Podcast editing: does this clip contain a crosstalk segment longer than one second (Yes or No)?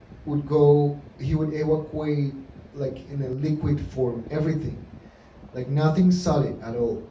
No